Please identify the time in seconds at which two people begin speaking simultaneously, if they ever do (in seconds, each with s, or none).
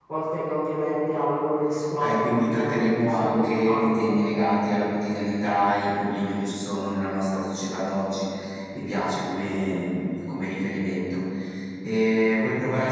1.9 s